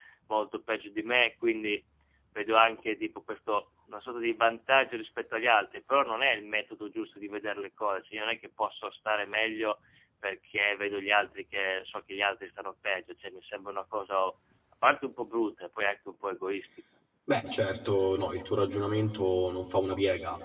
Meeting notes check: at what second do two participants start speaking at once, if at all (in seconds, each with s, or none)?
none